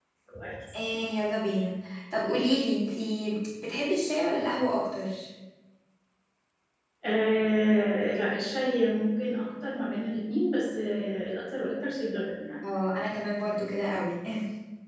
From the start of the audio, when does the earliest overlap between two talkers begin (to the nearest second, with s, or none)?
none